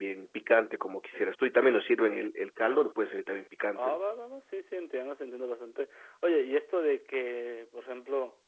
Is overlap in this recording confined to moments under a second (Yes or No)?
Yes